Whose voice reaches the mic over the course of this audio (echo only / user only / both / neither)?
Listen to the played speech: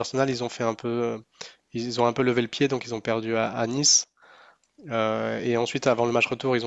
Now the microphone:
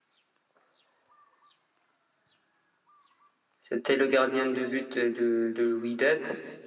user only